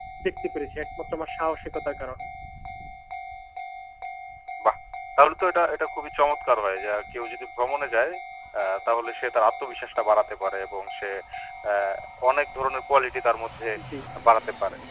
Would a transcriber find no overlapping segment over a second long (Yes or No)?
Yes